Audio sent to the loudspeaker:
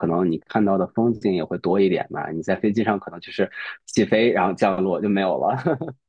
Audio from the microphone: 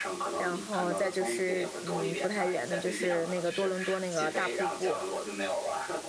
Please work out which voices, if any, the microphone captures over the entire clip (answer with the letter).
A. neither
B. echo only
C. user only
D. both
D